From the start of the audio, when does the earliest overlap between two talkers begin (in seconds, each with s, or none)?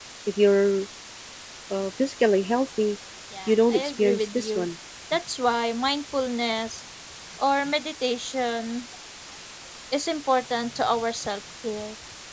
3.5 s